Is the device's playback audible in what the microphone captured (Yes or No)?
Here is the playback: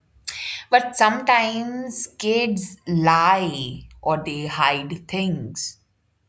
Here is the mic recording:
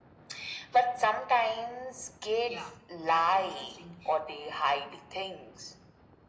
Yes